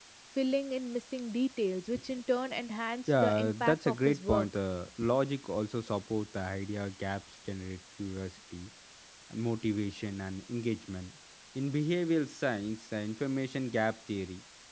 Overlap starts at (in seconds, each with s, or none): 3.1 s